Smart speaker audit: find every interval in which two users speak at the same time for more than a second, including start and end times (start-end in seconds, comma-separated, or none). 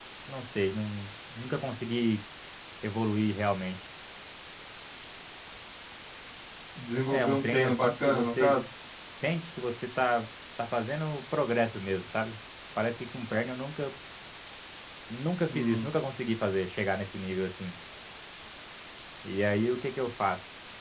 7.1-8.5